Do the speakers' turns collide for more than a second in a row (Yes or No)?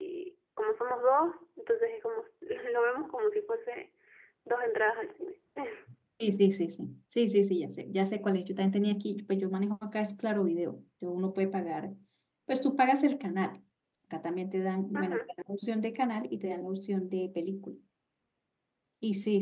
No